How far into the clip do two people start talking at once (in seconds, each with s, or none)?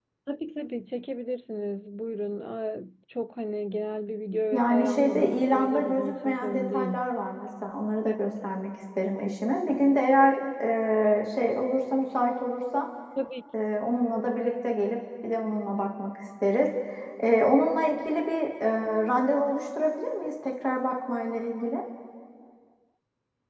4.5 s